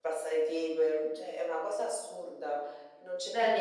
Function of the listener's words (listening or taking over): taking over